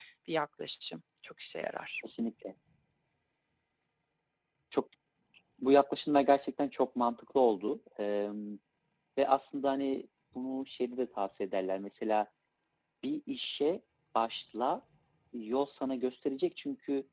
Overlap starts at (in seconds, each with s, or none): none